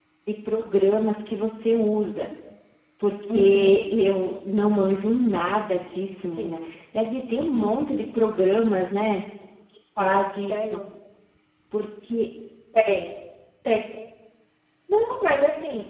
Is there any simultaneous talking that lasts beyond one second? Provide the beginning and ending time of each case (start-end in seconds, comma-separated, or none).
none